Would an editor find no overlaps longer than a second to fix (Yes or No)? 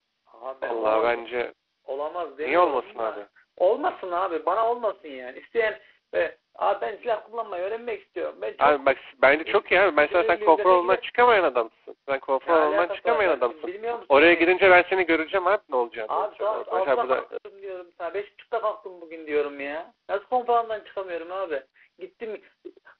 No